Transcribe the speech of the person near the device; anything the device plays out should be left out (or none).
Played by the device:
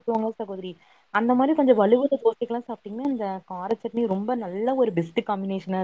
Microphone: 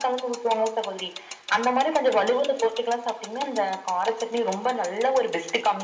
none